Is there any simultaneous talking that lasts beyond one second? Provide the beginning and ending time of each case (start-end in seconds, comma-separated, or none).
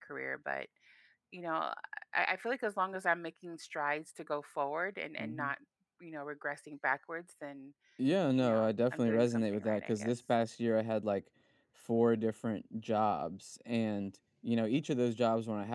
8.4-10.1